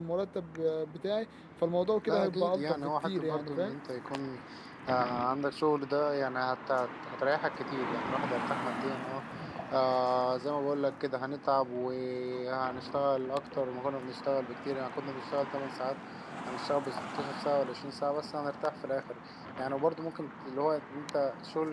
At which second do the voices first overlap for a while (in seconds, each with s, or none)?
2.1 s